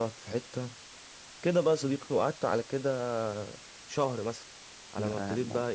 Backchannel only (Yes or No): Yes